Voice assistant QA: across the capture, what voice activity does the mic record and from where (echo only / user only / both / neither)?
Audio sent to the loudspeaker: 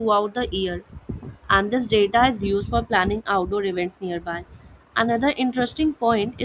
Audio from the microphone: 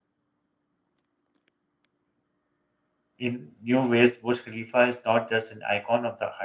user only